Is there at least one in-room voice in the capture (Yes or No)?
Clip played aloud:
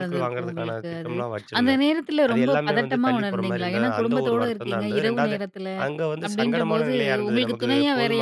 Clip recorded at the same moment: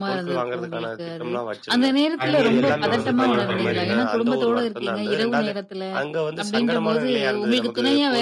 Yes